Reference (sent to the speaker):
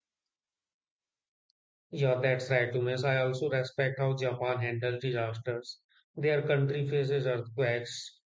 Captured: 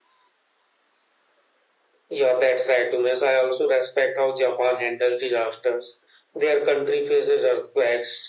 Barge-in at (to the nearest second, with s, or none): none